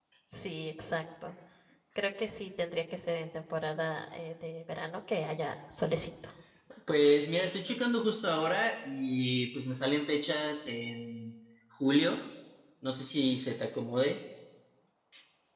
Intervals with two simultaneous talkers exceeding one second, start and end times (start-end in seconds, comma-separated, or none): none